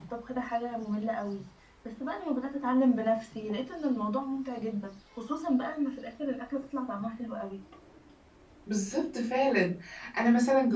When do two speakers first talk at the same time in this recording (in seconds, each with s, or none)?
none